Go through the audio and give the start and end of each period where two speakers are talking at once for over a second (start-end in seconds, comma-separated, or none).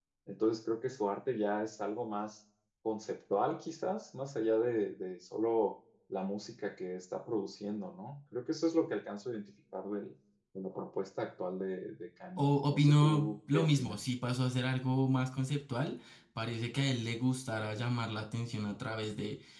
12.4-14.0